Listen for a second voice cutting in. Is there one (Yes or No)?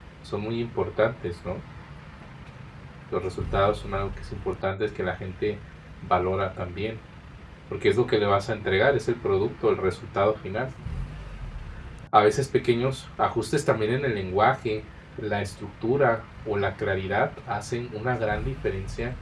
No